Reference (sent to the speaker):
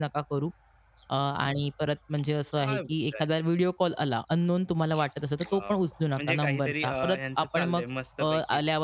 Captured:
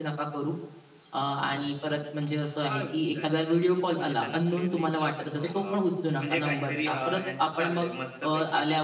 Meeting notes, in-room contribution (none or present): present